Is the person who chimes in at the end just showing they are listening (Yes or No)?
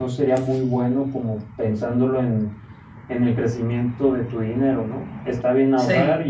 Yes